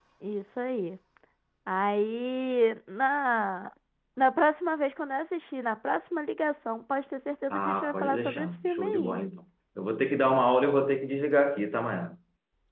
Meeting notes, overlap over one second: present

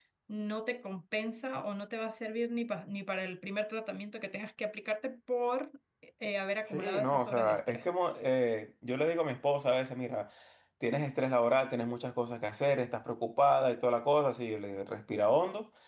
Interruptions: present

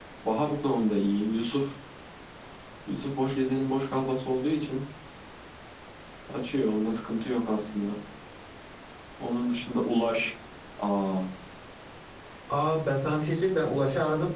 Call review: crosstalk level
none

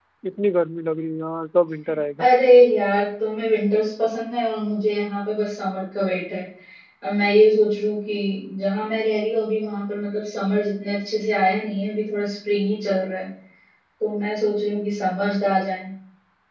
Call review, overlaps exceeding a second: none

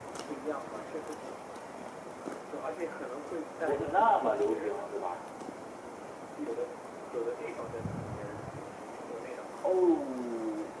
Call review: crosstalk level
present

